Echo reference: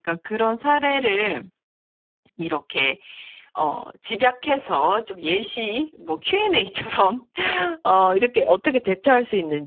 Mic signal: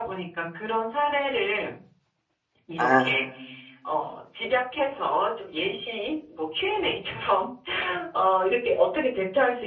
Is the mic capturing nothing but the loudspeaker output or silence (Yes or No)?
No